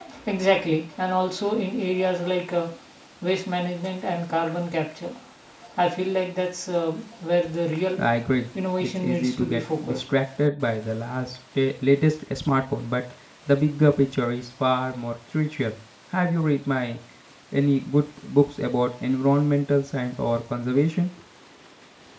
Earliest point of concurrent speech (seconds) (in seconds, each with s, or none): 8.8 s